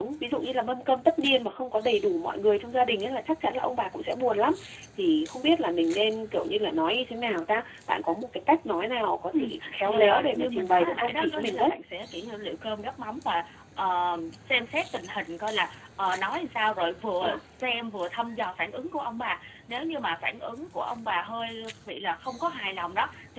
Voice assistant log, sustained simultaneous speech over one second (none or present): present